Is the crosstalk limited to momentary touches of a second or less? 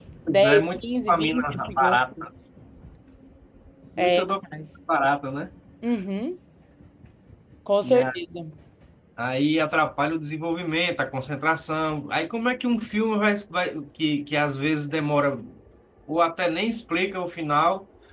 No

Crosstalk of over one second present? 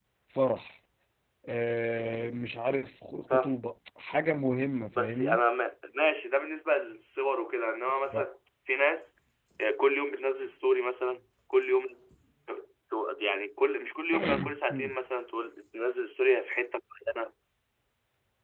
No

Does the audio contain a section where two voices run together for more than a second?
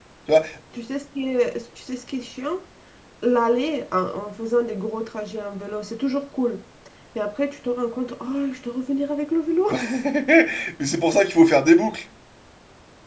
No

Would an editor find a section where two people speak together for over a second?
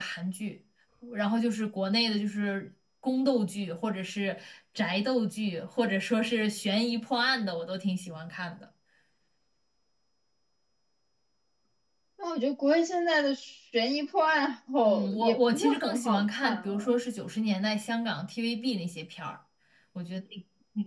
Yes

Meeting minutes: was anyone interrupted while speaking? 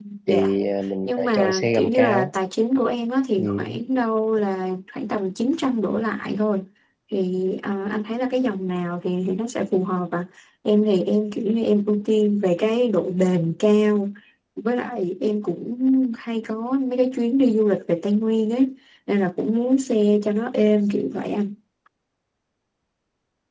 Yes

